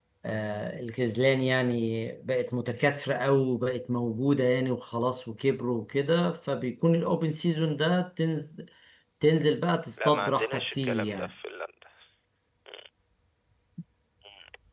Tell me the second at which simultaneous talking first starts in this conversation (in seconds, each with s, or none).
10.0 s